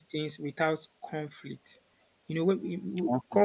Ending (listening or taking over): listening